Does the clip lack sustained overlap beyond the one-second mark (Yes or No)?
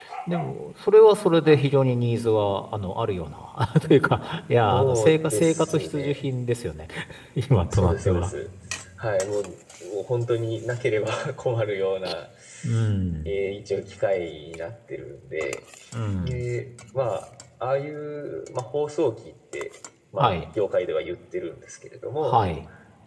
No